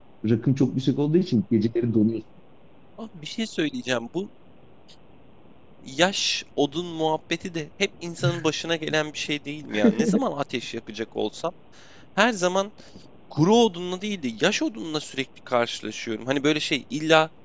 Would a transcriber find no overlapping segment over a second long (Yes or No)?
Yes